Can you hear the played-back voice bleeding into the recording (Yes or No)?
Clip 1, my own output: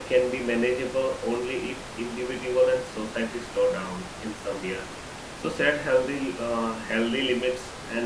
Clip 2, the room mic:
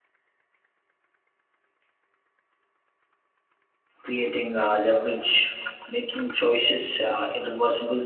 No